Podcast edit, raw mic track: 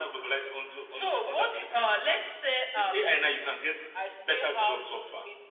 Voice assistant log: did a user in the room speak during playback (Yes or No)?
No